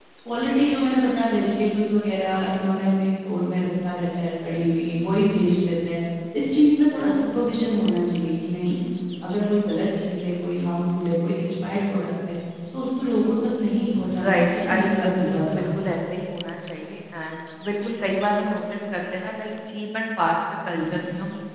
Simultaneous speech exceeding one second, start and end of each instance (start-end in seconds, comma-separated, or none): 14.2-15.7